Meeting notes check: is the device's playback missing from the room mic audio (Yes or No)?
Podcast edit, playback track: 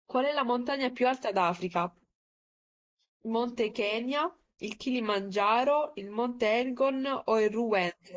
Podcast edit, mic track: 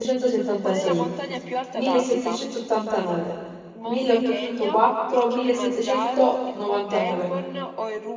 No